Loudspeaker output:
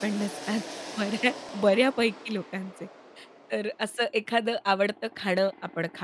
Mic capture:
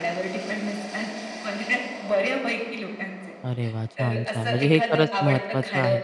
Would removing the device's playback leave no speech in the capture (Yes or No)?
No